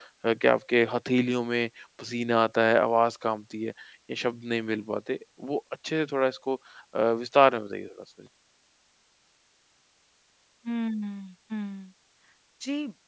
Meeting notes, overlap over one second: none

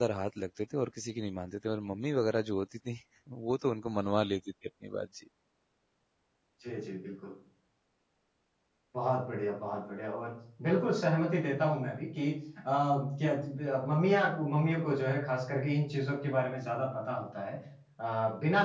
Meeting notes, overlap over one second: none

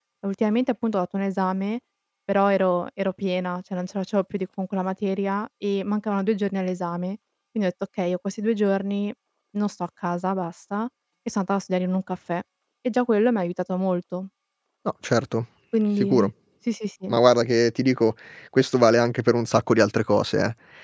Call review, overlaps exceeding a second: none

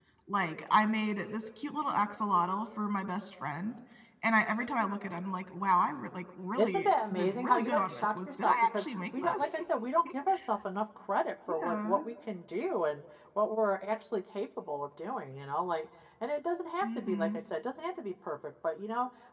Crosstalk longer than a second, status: present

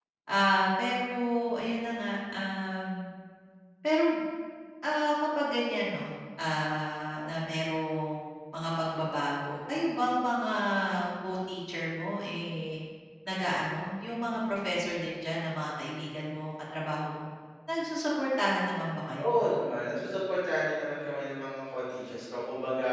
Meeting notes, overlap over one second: none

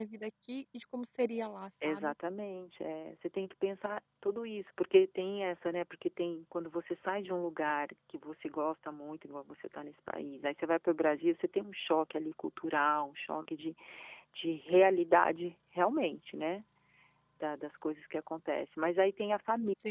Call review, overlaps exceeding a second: none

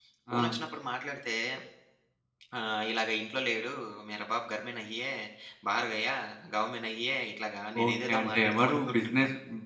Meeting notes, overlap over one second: present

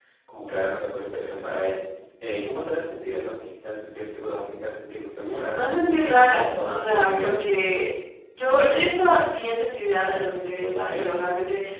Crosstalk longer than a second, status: present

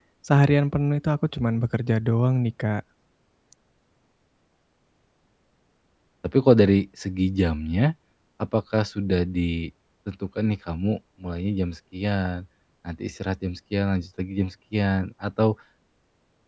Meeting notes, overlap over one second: none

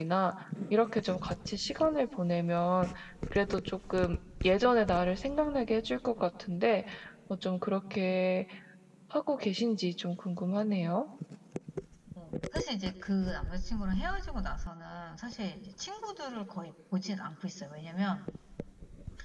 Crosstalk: none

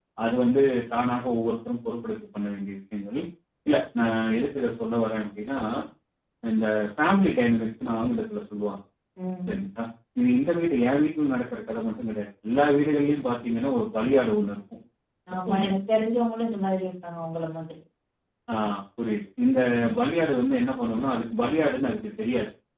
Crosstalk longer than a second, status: none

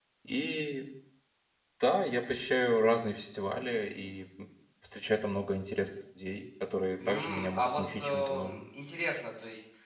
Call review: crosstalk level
present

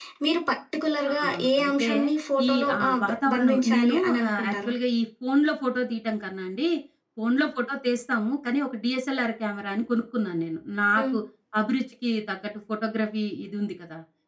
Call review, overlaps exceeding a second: present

